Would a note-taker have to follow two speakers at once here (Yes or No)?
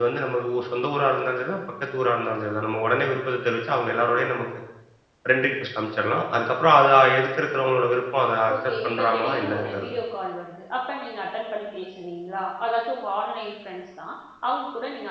Yes